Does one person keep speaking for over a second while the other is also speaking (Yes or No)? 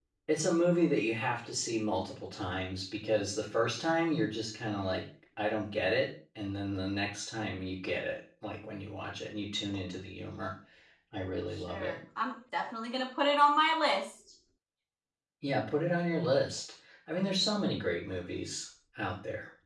No